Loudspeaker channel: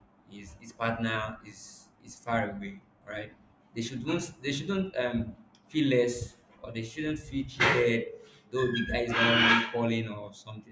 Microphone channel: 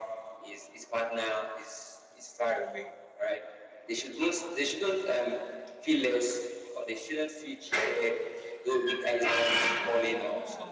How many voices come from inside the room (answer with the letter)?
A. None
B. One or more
B